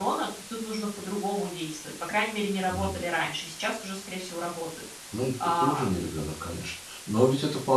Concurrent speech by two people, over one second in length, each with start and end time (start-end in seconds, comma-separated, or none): none